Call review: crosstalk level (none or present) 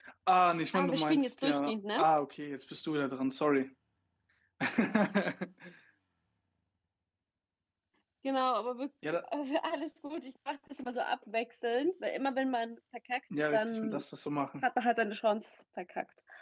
present